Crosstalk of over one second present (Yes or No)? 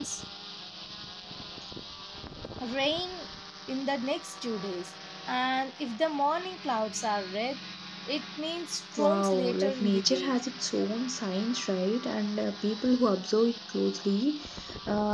Yes